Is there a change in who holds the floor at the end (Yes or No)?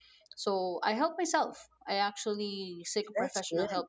No